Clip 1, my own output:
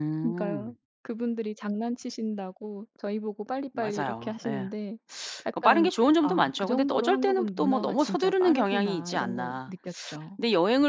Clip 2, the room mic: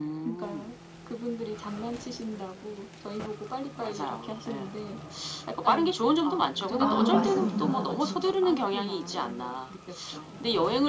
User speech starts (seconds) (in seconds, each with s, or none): 6.8 s